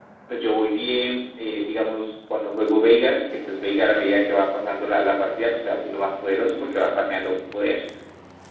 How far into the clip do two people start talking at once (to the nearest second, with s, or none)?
none